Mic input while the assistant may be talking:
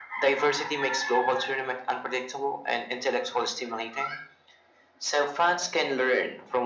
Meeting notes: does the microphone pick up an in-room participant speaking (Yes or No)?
No